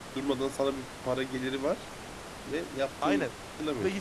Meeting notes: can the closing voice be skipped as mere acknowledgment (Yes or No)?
No